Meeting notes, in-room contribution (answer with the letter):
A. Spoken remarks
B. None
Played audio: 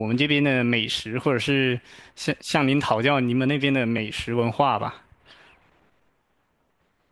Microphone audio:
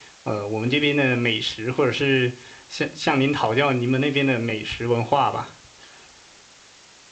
B